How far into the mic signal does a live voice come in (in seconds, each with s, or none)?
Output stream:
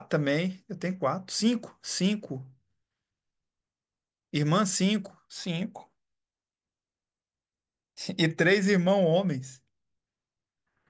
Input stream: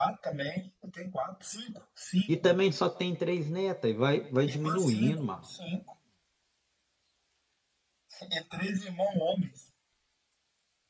2.3 s